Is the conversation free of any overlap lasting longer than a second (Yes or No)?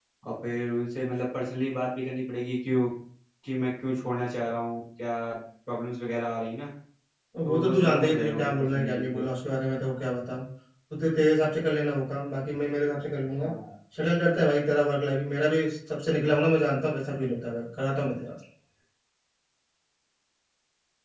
No